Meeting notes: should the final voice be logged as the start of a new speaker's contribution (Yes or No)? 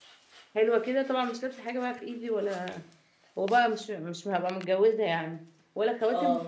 No